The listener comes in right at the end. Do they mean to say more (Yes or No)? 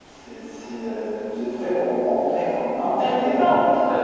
Yes